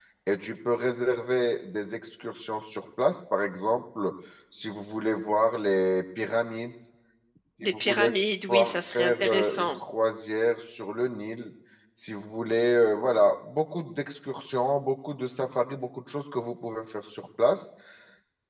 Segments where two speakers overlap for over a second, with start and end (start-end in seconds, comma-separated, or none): 8.5-9.8